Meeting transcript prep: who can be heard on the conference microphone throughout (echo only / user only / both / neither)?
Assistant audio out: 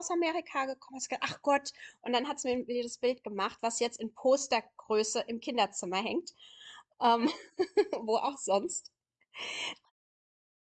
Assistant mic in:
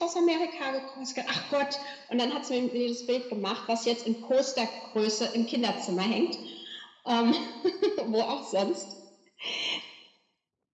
echo only